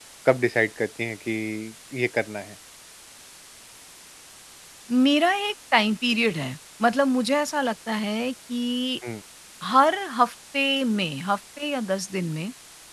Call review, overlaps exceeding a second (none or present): none